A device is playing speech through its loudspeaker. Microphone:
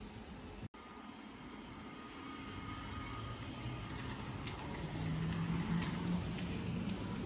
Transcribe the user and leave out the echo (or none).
none